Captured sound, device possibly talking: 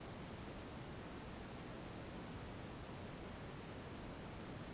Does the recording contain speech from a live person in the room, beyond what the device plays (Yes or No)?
No